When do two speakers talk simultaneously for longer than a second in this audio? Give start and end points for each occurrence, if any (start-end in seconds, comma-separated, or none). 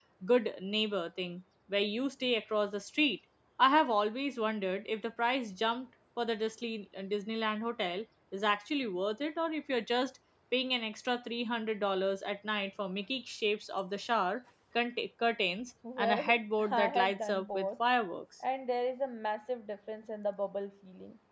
16.0-17.7